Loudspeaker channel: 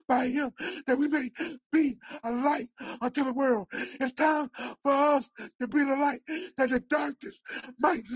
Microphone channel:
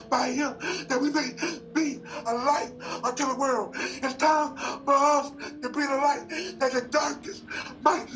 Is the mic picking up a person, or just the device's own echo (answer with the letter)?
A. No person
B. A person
A